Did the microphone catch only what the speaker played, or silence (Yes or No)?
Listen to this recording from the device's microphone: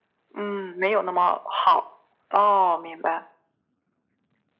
Yes